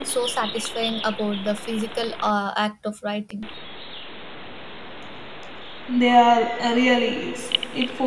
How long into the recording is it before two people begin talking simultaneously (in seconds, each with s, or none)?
none